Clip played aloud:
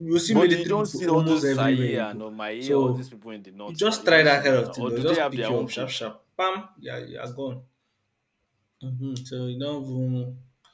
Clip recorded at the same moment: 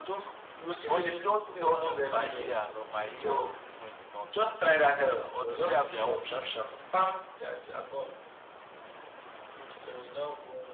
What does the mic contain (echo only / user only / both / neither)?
echo only